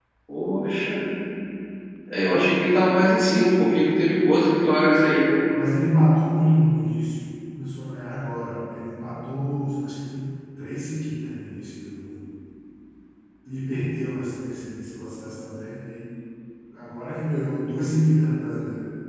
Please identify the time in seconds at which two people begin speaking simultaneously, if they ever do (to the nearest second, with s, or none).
none